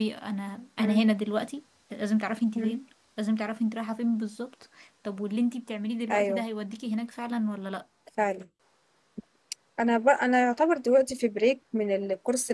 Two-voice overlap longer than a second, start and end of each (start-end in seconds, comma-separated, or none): none